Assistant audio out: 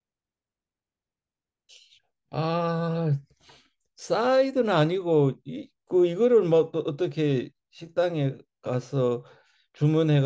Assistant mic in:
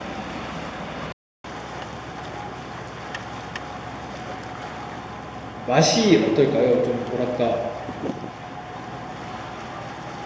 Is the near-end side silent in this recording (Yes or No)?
No